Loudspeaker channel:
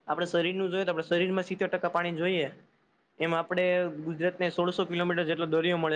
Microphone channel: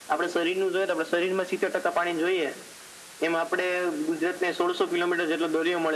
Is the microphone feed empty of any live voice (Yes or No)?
Yes